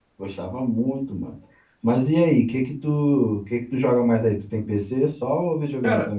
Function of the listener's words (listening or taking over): taking over